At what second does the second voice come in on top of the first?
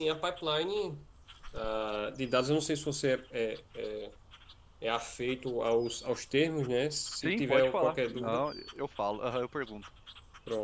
7.2 s

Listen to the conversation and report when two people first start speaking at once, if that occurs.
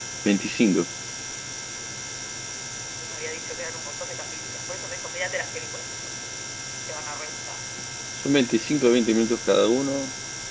none

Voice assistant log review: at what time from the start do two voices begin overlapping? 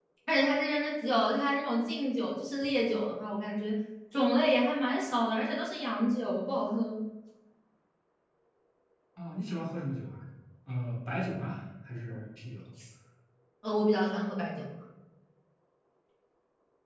none

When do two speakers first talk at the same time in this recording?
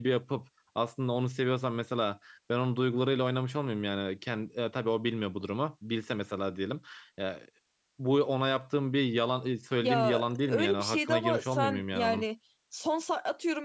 9.8 s

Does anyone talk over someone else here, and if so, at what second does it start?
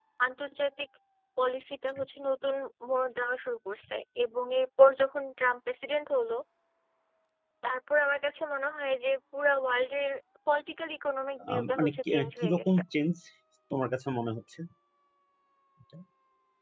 11.4 s

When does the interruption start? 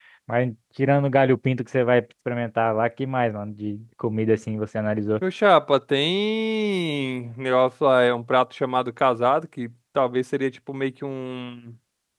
none

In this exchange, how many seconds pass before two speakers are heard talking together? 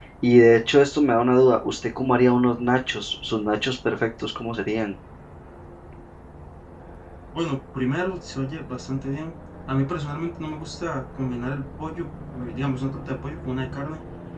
none

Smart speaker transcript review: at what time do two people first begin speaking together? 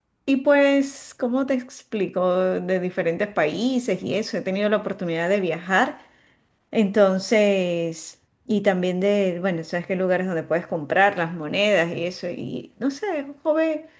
none

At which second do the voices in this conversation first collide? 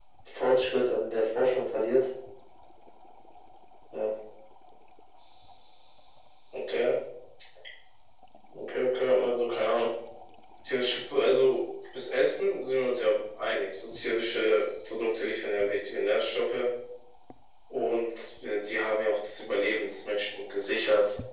none

